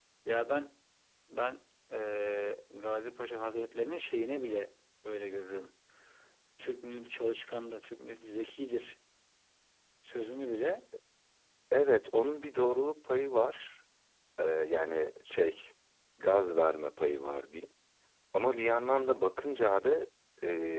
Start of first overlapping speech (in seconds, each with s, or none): none